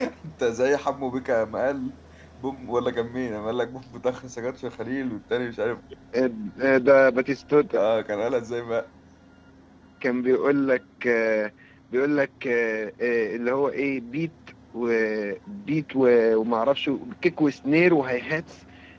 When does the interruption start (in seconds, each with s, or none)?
none